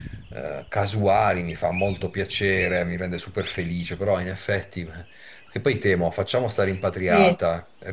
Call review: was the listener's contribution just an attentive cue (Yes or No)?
Yes